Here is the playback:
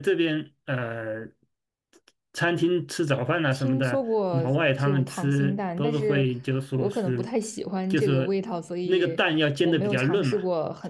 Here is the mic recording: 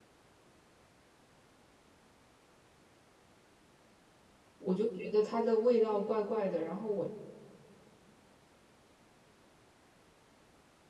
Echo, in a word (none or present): none